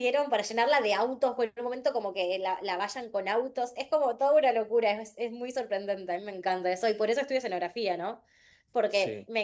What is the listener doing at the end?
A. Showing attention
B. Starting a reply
A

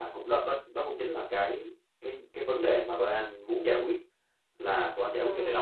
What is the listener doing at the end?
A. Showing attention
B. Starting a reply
A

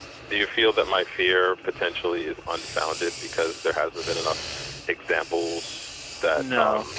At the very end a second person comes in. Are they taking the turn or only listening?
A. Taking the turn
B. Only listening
A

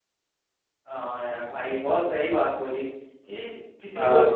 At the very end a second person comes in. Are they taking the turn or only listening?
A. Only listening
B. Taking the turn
A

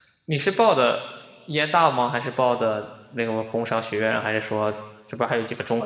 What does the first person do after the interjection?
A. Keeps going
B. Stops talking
B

